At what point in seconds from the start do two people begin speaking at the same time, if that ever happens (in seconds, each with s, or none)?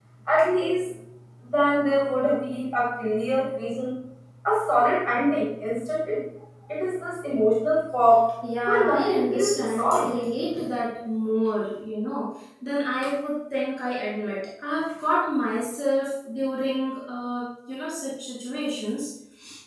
8.7 s